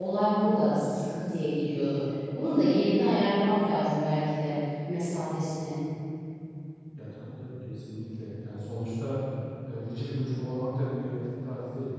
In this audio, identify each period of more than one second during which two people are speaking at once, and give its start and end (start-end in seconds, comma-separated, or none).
none